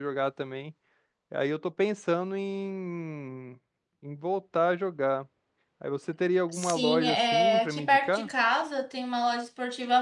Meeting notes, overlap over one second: present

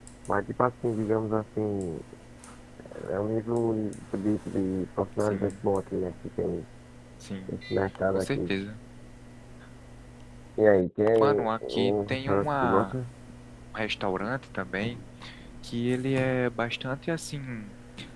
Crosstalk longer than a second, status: present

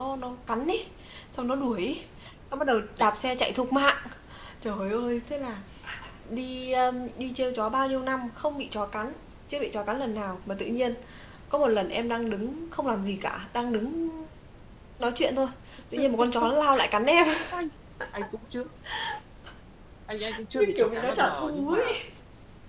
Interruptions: present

